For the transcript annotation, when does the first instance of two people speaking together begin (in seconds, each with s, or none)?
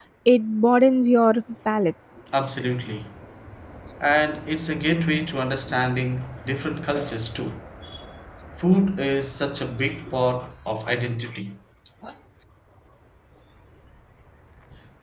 none